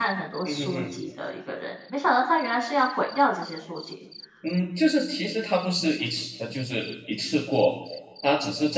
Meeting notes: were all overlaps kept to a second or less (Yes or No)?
Yes